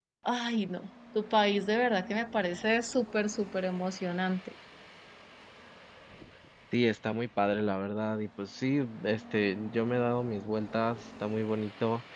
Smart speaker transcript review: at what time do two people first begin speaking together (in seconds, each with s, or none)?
none